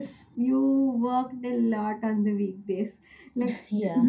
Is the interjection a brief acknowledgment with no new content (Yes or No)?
Yes